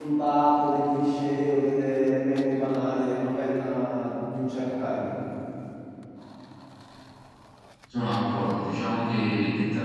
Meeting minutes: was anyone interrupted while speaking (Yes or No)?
No